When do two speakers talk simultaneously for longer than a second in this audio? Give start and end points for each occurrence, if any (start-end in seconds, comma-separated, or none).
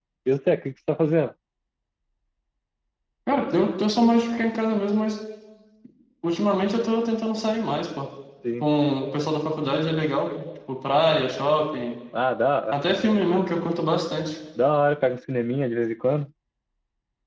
none